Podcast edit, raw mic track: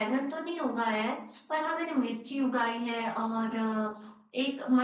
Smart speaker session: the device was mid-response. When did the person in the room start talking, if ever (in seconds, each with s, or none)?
none